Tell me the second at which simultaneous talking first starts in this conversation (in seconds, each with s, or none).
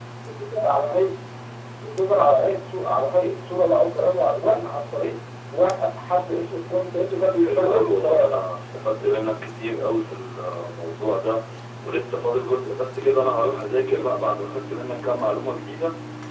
7.2 s